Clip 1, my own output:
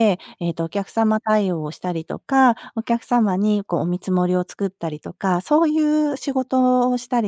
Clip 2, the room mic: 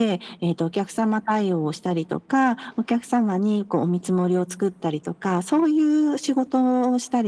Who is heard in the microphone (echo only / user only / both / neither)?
echo only